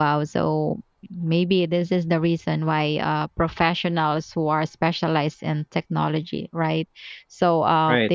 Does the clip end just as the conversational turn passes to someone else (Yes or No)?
No